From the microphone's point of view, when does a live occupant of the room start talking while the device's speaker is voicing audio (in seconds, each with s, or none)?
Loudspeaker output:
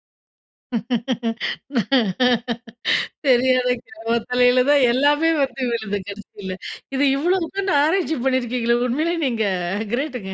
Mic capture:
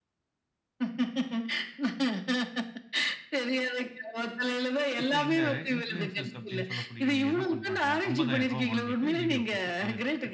5.0 s